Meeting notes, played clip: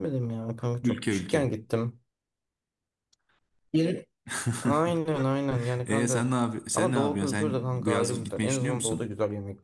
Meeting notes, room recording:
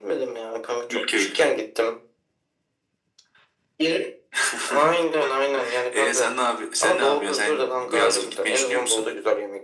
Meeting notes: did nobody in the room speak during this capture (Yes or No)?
Yes